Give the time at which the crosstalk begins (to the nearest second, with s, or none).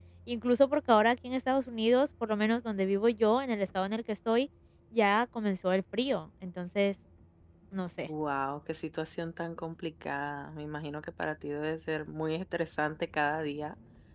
none